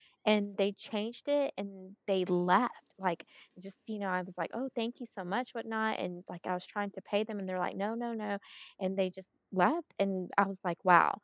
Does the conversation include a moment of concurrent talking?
No

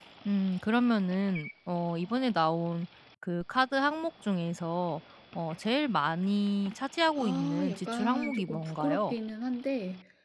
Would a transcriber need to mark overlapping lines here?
Yes, from 7.2 s

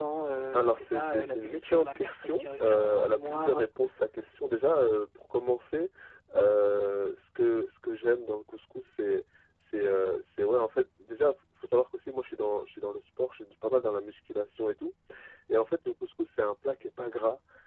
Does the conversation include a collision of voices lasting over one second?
Yes, from 0.5 s

